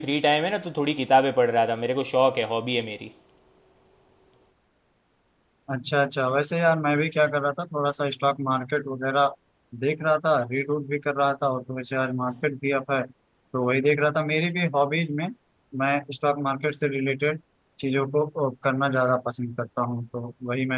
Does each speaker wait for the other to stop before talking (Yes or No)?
Yes